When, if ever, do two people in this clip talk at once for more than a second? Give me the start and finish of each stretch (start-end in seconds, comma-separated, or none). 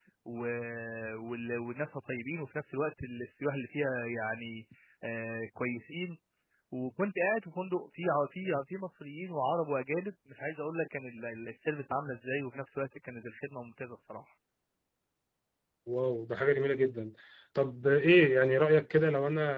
none